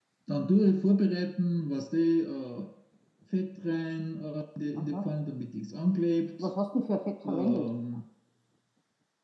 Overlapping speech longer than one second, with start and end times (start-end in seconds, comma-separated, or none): none